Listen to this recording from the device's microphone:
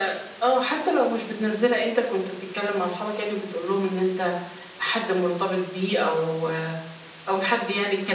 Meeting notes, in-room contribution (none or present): none